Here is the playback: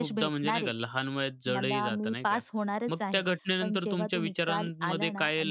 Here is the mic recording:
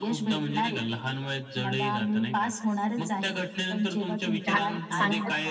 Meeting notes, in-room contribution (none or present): present